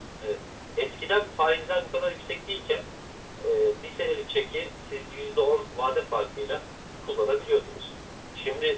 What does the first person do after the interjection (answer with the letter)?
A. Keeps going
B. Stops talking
A